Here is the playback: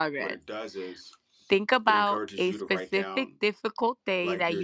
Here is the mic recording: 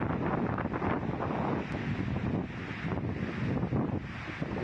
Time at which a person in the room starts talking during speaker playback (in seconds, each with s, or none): none